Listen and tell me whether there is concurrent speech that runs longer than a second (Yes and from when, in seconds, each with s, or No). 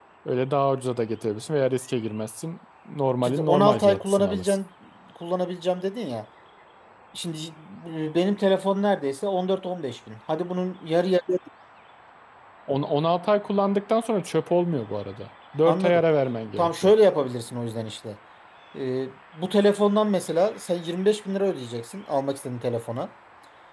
Yes, from 3.2 s